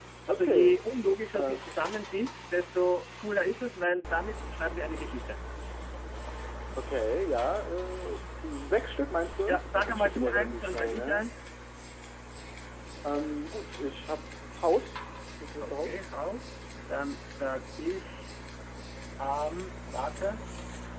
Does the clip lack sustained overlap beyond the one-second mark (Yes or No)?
No